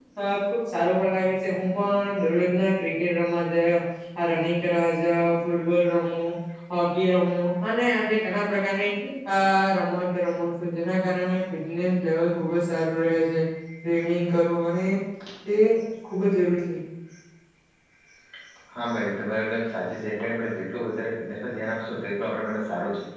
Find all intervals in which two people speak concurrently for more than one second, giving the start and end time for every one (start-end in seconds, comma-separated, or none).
none